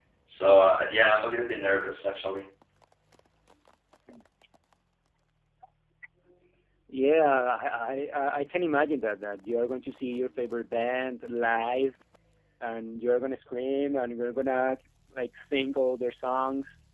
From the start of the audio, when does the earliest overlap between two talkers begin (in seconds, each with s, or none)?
none